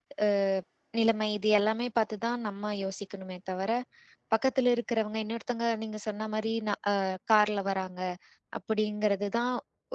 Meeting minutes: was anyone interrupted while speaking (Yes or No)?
No